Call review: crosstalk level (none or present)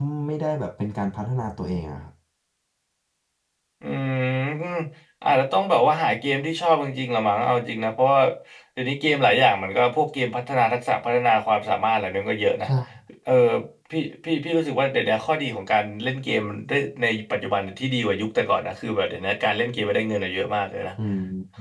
none